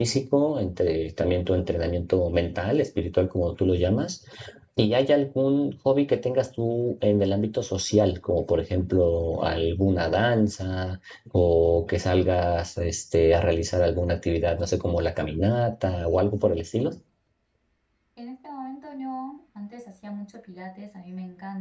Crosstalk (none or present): none